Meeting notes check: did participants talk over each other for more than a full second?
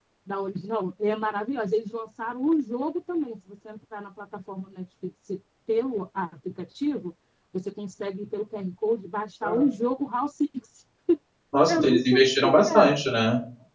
Yes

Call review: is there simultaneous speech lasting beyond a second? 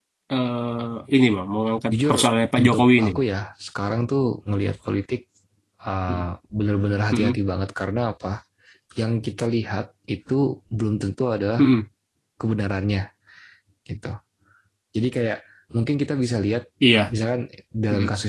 Yes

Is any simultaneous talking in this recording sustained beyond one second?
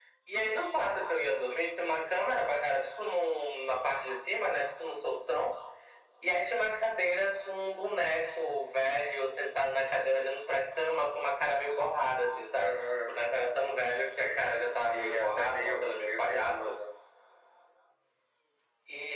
Yes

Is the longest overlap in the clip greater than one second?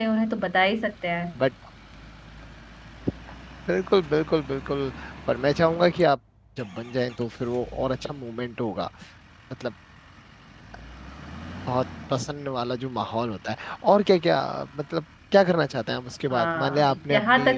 Yes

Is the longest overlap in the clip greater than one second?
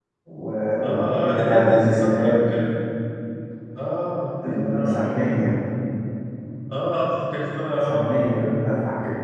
Yes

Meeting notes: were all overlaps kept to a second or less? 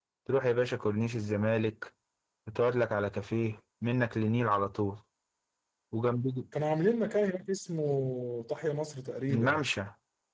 Yes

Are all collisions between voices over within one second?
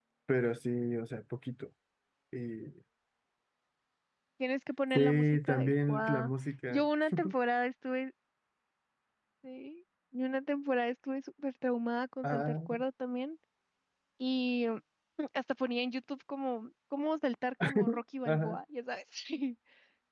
No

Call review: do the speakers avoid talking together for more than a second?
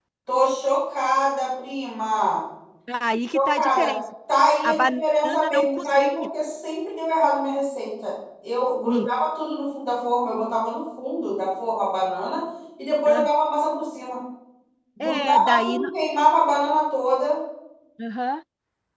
No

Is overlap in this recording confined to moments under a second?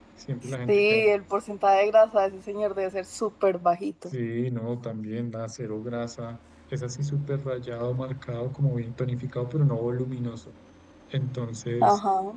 Yes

